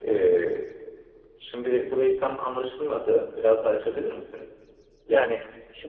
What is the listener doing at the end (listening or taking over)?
taking over